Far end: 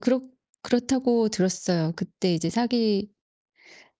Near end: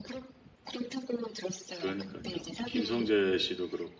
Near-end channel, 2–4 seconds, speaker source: both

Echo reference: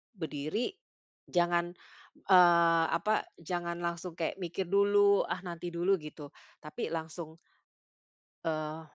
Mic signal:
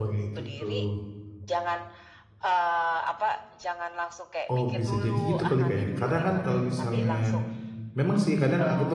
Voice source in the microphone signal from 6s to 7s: both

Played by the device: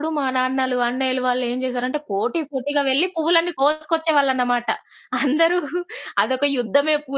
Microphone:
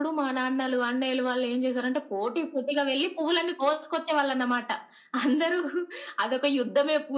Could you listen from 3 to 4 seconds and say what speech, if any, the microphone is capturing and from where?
echo only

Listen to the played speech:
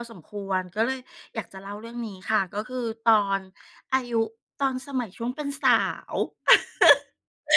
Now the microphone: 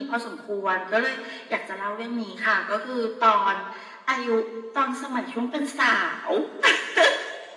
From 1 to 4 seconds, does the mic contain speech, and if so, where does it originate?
echo only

